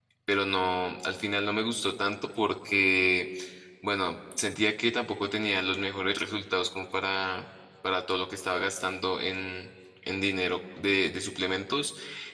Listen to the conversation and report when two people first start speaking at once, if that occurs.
none

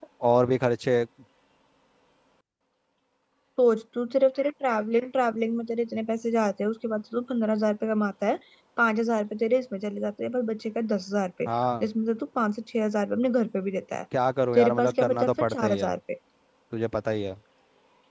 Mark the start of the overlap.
14.5 s

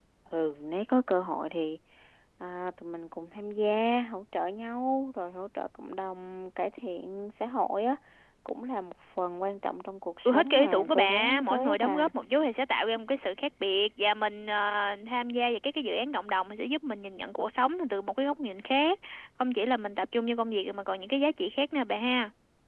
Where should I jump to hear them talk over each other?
10.2 s

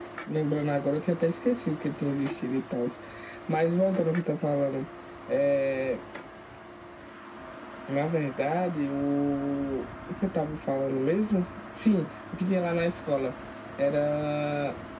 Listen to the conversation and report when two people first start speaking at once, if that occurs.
none

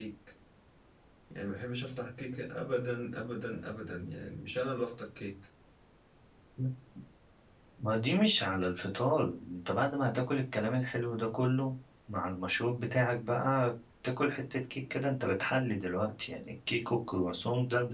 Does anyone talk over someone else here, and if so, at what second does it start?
none

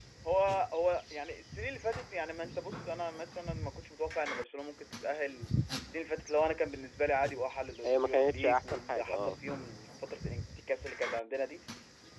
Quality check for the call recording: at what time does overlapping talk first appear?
7.8 s

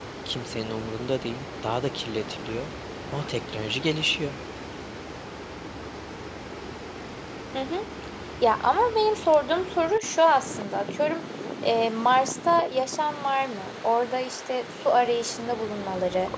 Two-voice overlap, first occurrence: none

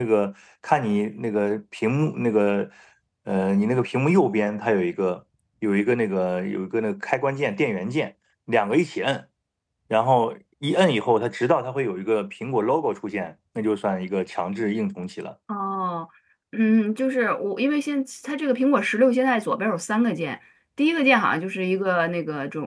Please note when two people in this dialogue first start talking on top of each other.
none

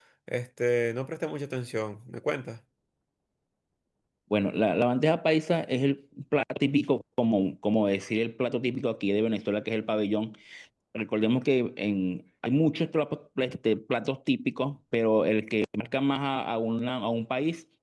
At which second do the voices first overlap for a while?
none

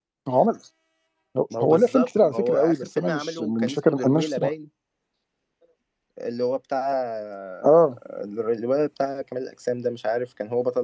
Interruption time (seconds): 1.6 s

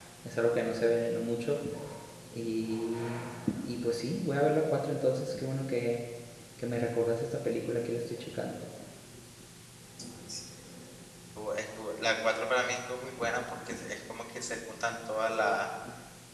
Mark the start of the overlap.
none

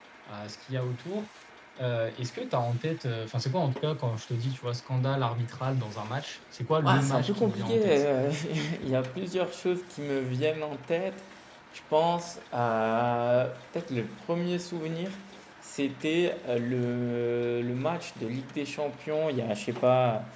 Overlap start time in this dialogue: 6.8 s

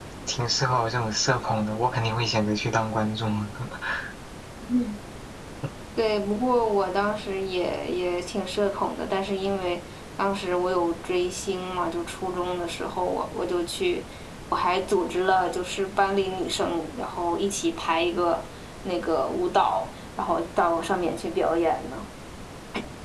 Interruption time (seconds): none

